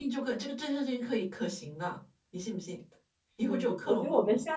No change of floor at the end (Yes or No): No